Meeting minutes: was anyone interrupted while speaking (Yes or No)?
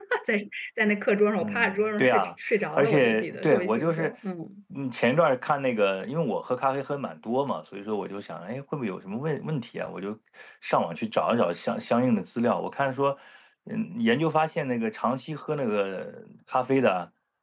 Yes